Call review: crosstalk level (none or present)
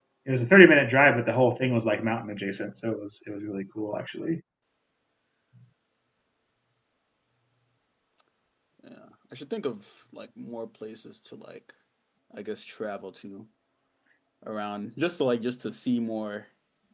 none